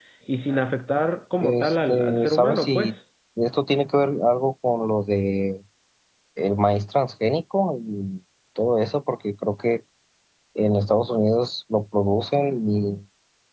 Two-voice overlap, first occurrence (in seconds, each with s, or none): 1.4 s